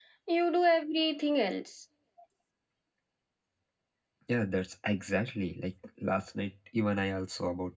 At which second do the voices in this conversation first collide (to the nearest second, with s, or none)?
none